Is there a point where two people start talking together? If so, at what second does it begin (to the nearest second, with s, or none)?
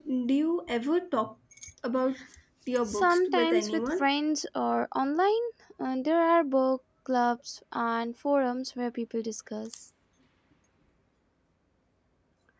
3 s